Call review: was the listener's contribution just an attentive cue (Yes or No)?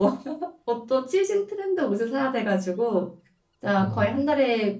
Yes